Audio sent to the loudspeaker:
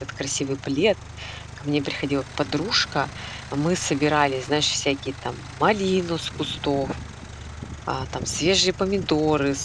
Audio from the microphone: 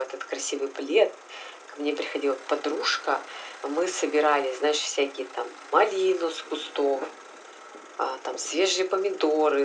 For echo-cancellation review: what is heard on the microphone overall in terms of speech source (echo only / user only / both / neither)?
echo only